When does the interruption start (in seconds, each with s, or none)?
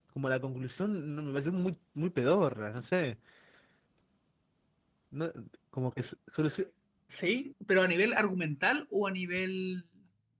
none